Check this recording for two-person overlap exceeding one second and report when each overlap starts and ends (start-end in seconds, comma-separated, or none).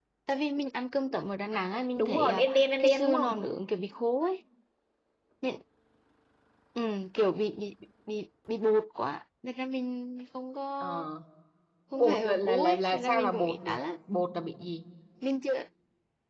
2.0-3.4, 11.9-13.8